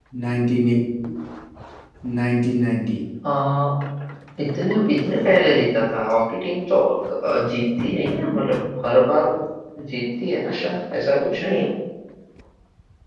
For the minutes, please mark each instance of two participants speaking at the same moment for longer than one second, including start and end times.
none

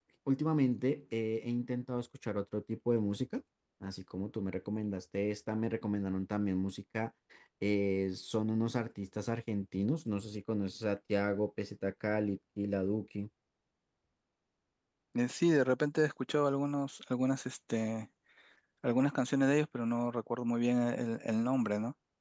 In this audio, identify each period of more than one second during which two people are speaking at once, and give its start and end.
none

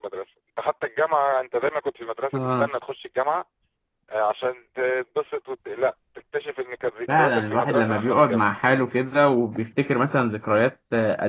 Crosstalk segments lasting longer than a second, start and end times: 7.1-8.5

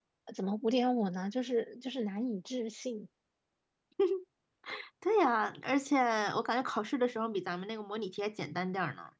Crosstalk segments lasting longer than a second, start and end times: none

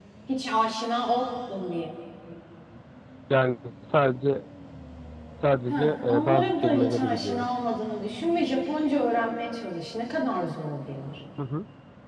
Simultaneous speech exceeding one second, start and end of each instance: 5.7-7.5

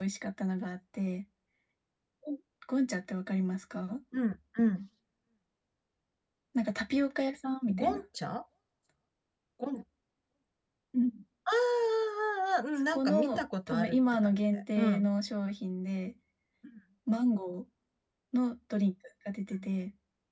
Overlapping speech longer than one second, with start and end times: 12.9-15.1

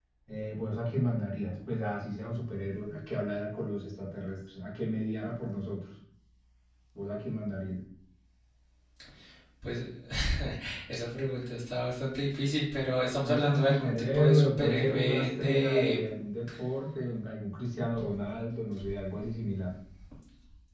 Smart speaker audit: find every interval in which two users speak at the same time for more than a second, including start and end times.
13.2-16.0

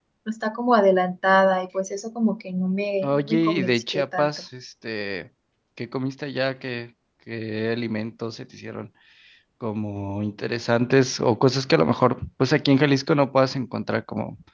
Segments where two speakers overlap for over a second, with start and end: 3.0-4.3

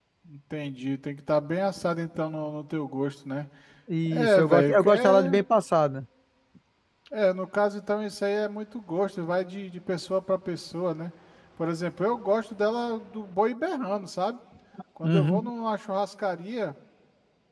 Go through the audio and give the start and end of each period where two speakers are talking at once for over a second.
4.1-5.4

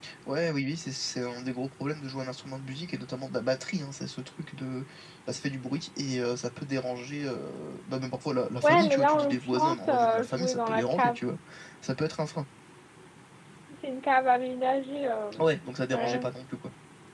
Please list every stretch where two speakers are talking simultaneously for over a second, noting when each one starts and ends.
8.6-11.2

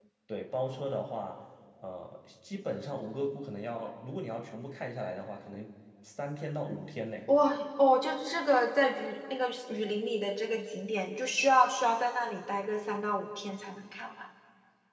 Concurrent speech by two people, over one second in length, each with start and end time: none

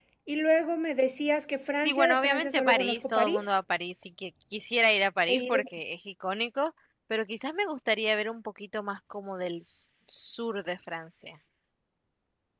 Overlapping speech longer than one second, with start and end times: 1.8-3.5

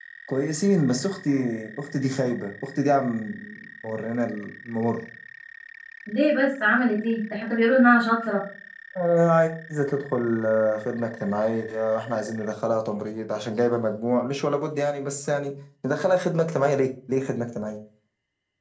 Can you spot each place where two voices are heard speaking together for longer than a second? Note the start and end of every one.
none

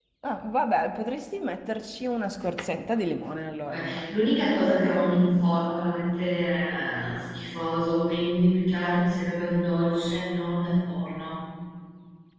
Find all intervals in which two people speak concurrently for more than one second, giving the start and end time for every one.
none

